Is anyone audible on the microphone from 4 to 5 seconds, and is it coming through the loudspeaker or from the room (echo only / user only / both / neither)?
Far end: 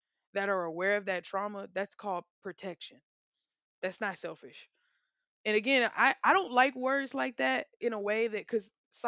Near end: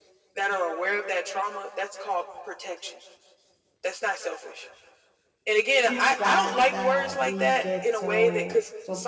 echo only